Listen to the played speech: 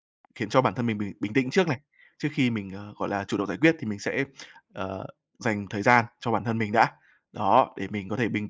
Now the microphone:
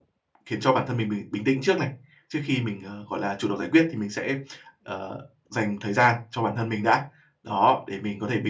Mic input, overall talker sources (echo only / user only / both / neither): echo only